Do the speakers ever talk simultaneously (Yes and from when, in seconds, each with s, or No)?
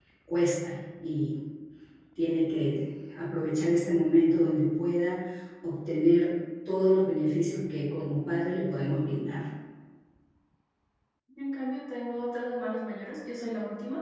No